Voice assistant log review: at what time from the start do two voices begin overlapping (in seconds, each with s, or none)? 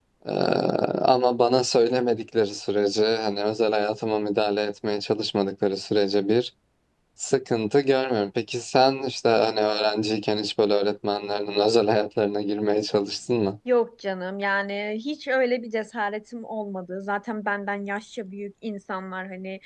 none